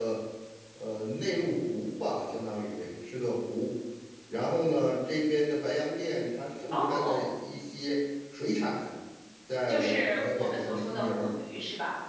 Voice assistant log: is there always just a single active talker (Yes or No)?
No